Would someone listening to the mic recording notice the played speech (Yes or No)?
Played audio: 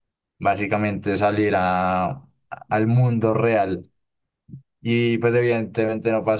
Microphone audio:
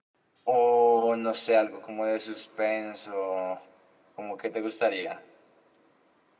No